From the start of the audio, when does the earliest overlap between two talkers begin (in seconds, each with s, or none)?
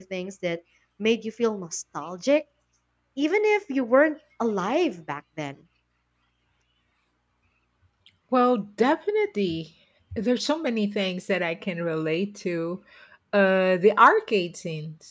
none